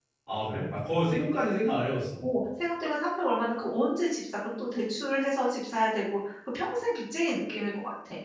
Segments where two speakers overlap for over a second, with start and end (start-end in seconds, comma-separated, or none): none